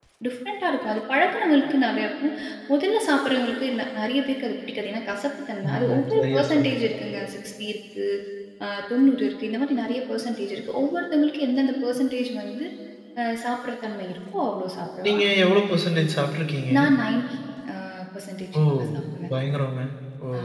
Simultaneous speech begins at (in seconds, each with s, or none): 5.7 s